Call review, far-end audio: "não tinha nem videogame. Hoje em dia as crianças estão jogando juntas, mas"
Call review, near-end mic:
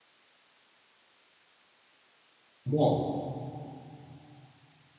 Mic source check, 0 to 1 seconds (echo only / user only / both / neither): neither